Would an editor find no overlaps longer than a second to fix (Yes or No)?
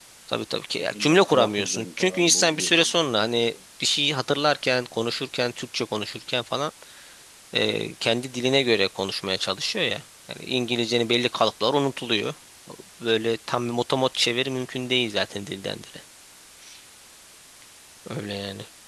No